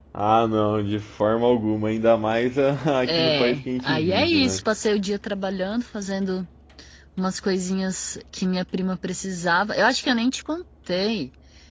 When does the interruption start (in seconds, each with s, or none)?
3.1 s